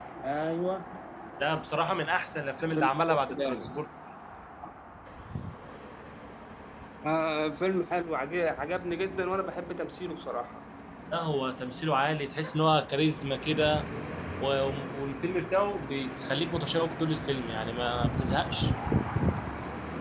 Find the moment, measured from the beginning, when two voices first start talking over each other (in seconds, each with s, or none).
2.6 s